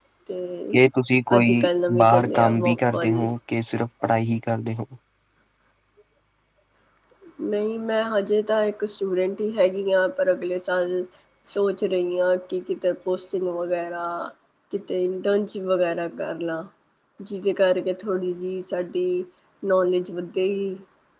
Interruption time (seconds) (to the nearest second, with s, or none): 1 s